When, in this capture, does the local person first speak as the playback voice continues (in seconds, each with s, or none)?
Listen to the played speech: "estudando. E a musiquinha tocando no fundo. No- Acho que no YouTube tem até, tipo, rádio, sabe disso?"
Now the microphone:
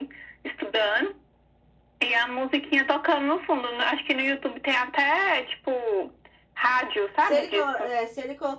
7.2 s